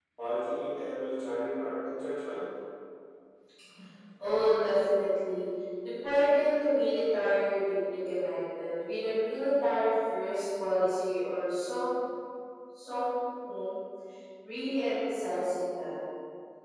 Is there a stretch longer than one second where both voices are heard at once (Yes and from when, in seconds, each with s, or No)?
No